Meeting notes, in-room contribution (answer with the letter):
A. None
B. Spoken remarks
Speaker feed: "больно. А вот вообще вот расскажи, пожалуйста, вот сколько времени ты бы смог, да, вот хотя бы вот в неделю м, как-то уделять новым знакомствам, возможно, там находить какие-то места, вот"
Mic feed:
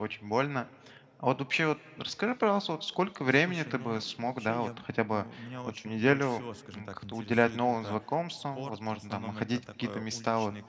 B